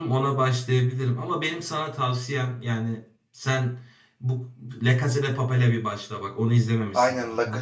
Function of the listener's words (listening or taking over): taking over